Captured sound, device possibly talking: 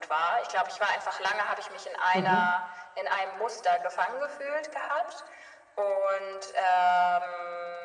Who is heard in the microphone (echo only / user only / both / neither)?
both